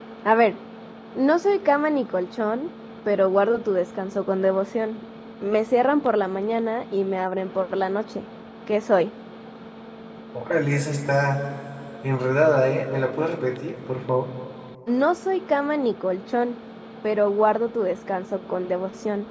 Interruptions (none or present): none